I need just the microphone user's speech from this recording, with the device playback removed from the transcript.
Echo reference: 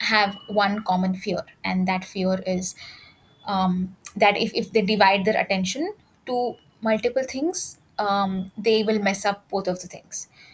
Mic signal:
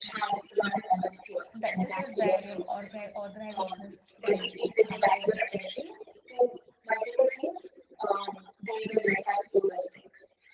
that this is where your organi- organizational skills come in.

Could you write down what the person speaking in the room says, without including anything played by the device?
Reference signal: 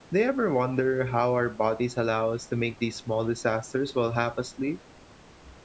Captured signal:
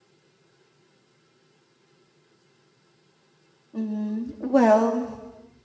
Mm, well,

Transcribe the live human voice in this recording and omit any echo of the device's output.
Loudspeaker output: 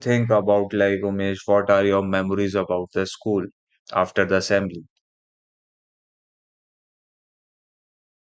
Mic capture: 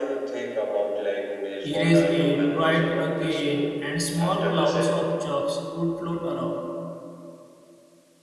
erase it, write again, and small clouds of chalks would float around.

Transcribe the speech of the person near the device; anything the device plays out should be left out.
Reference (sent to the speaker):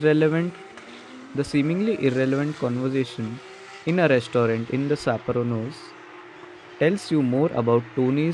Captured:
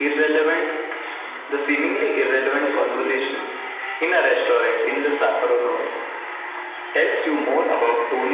the color grading

